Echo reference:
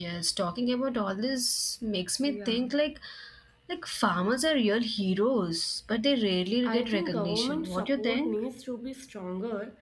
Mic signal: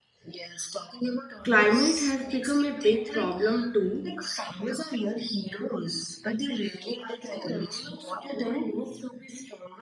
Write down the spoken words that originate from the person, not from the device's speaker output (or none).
Climate has become a big problem too.